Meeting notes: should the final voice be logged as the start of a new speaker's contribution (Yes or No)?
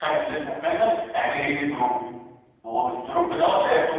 No